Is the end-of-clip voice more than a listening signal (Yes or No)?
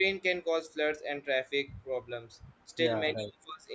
No